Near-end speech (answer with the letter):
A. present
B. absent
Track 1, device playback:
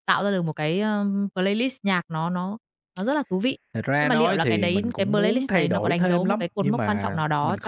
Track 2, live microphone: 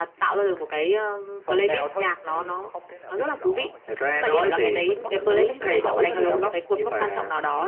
A